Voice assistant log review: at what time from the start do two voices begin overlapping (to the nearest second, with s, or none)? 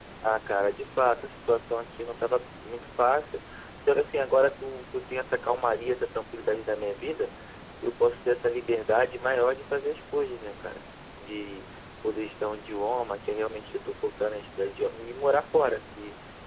none